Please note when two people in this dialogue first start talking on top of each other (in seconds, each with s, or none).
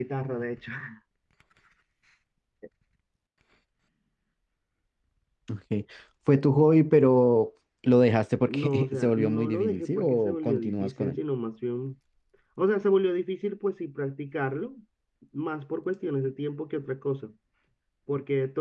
8.5 s